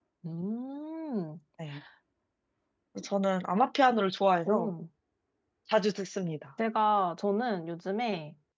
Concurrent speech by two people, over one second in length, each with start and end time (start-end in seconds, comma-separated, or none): none